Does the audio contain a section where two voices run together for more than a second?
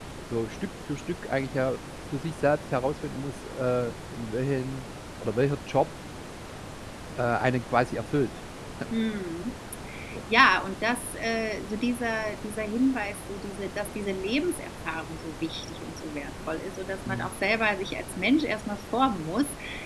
No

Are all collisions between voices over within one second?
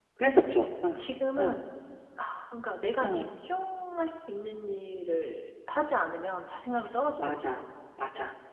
Yes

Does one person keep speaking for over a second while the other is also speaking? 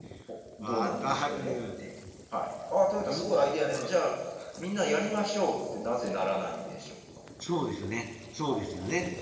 Yes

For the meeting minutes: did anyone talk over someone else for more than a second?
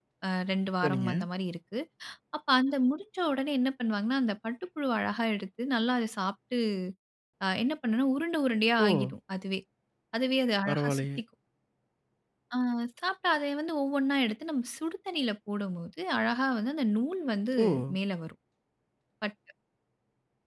No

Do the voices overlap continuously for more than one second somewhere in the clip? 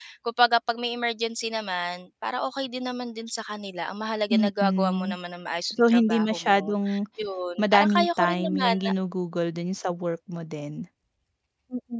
Yes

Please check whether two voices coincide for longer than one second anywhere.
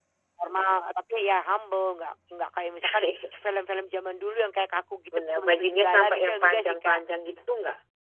Yes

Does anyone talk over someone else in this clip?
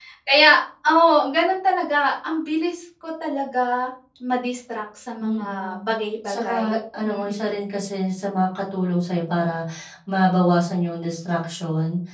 Yes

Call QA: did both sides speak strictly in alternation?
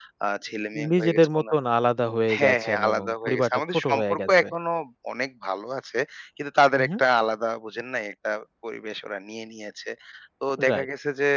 No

